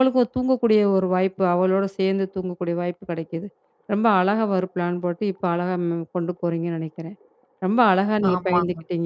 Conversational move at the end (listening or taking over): listening